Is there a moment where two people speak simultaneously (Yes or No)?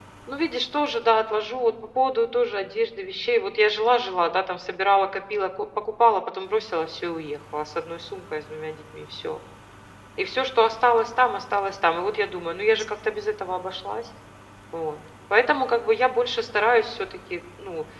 No